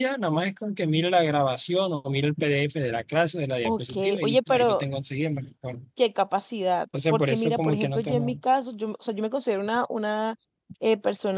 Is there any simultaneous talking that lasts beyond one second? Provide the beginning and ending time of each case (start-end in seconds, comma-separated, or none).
3.6-4.8, 7.1-8.4